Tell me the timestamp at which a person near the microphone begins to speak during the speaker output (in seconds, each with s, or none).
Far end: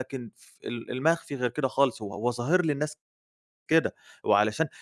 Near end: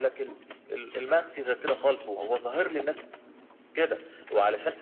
none